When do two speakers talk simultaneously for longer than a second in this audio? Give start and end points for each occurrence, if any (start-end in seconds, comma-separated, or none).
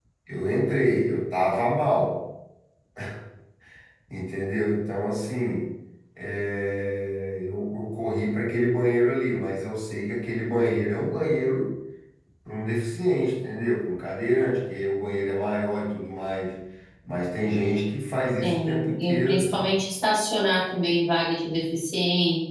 18.4-19.8